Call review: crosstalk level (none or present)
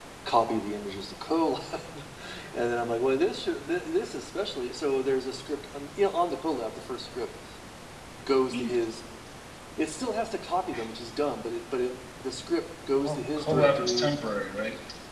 present